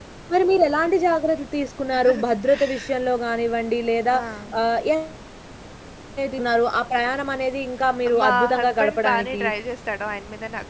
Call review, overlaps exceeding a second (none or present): present